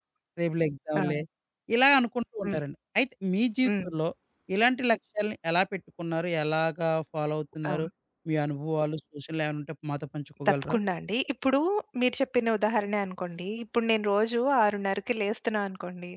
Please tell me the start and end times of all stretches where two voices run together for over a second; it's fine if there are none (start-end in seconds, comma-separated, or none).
none